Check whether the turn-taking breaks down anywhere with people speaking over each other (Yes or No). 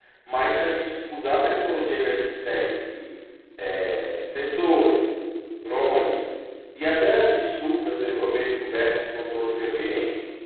No